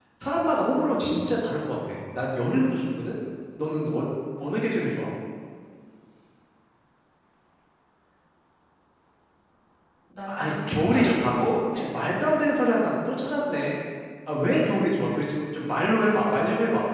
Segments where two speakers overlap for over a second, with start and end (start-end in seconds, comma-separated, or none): 10.3-11.8